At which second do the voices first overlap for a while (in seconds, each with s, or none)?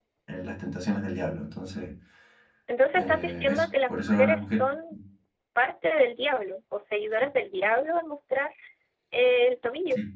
3.0 s